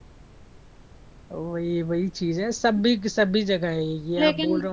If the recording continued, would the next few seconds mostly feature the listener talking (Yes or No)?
Yes